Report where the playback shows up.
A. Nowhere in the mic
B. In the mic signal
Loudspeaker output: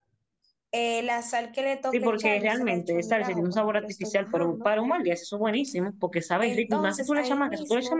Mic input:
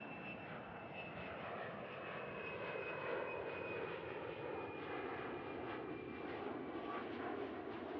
A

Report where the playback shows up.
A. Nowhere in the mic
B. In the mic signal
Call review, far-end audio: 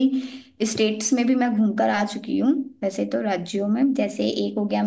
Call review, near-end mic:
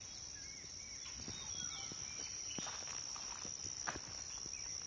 A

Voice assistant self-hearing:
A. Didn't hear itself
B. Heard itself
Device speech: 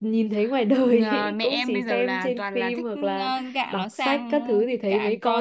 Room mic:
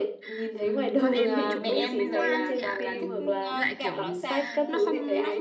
B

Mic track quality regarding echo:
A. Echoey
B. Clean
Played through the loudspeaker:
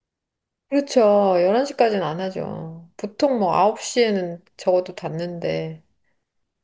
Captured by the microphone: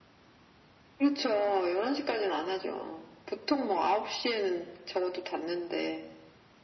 A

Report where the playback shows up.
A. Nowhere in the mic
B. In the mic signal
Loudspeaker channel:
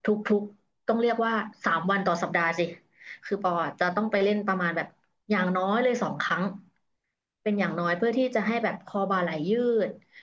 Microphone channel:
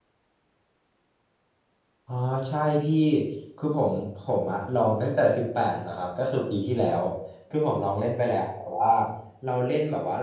A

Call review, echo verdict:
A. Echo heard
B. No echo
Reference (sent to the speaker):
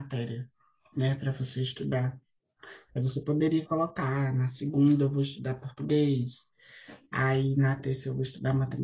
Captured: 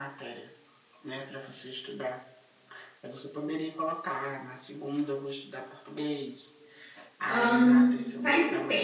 A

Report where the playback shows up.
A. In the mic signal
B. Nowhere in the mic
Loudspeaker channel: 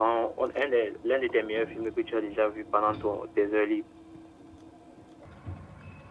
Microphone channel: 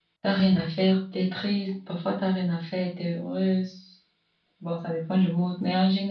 B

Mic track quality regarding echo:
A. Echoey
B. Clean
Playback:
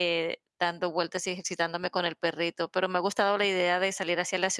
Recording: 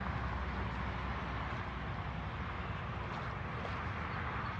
B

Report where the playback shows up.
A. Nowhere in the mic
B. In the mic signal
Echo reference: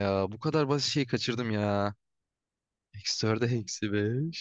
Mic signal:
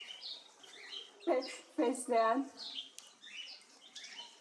A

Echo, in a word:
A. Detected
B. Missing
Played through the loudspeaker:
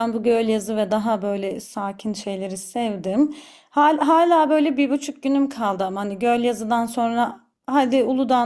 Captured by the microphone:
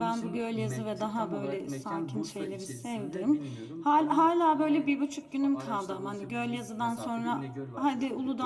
A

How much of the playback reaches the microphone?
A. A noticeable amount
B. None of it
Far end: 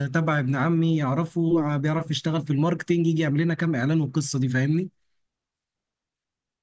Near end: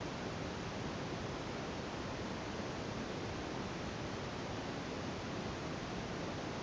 B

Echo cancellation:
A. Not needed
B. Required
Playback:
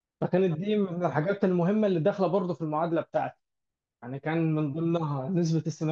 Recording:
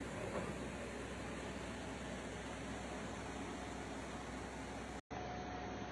A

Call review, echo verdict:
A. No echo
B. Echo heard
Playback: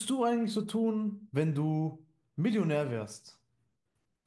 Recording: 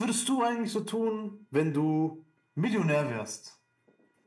B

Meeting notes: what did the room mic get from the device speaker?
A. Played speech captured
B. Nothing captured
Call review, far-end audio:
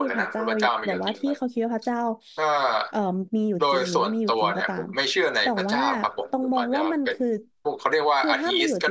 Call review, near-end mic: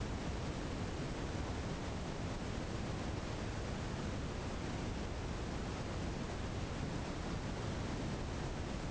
B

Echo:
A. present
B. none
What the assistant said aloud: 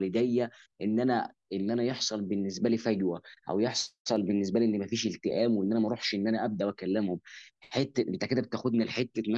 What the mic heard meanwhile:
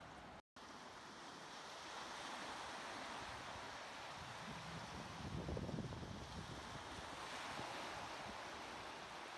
B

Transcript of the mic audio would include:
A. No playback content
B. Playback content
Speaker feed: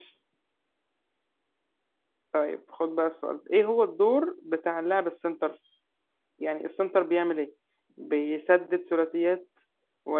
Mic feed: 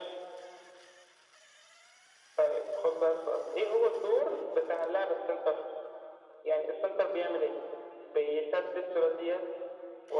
B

